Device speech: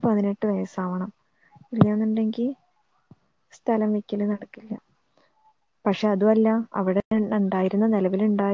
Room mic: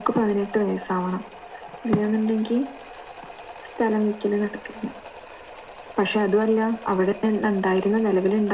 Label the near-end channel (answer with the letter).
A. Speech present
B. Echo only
B